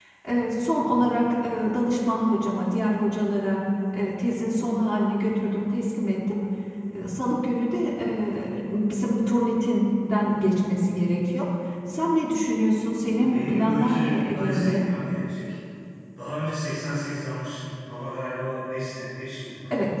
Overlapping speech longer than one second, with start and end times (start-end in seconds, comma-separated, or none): 13.2-14.8